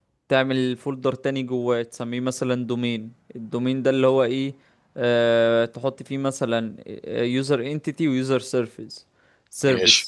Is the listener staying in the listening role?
Yes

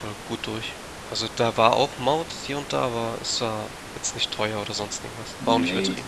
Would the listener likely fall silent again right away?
No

